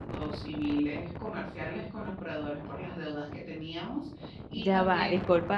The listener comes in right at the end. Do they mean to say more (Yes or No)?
Yes